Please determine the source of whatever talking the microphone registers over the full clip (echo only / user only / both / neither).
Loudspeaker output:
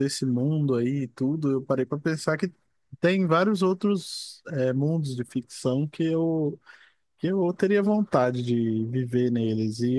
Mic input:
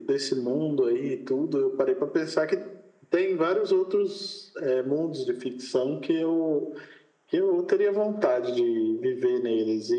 echo only